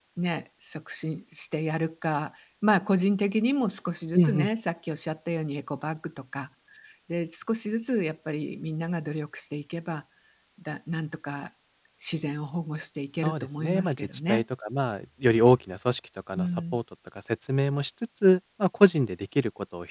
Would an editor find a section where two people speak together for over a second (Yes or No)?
Yes